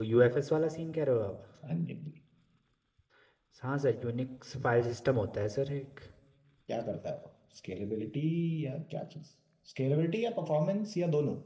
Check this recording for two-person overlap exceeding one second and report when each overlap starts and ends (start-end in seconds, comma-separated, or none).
none